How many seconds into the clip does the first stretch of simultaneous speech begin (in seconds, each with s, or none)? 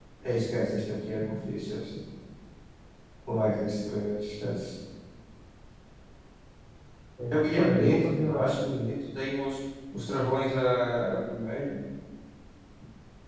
7.3 s